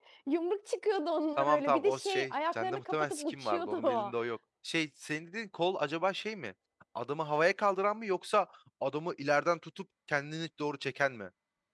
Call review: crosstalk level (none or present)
present